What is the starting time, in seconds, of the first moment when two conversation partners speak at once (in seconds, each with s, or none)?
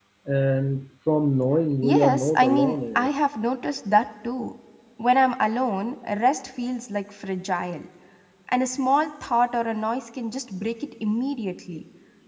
1.8 s